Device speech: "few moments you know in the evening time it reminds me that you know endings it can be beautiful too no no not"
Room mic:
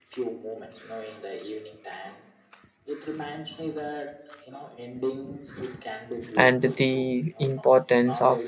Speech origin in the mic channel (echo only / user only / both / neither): both